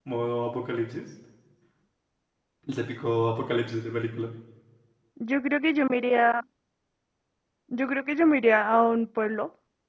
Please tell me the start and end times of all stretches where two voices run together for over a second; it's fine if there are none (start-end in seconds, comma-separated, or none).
none